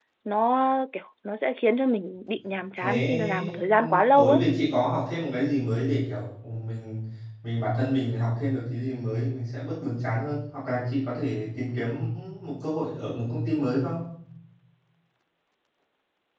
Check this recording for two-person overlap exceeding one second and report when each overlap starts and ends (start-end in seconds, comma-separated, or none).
2.8-4.4